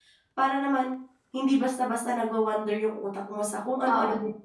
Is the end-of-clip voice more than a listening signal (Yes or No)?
Yes